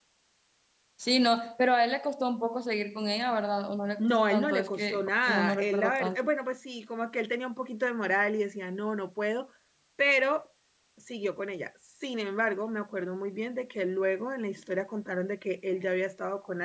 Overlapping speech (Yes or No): Yes